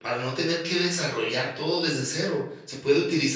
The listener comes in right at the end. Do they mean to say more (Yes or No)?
No